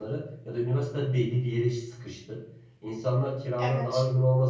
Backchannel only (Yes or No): Yes